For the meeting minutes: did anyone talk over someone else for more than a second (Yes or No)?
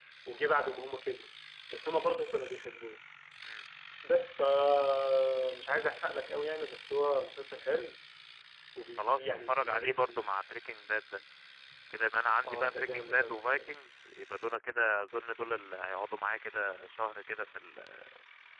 Yes